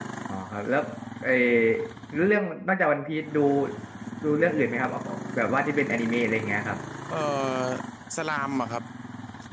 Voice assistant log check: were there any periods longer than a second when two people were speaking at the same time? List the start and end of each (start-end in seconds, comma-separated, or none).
none